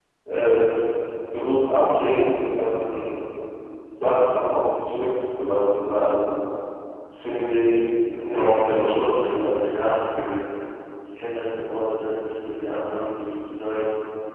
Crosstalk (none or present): present